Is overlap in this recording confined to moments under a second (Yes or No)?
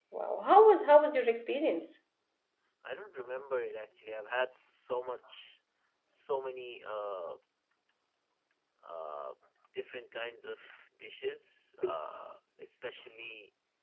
Yes